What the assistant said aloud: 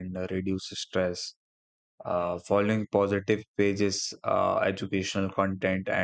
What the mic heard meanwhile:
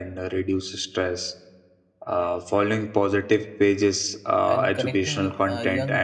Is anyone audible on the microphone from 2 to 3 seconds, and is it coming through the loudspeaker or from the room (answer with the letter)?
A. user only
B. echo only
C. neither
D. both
B